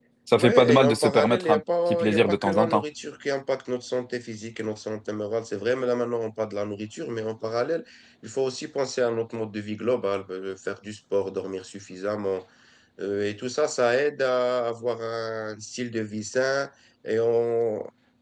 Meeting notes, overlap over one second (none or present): present